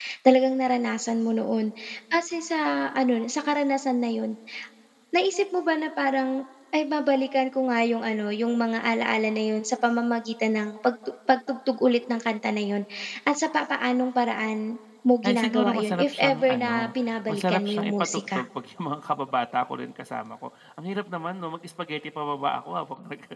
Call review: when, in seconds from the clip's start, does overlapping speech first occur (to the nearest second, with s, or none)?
15 s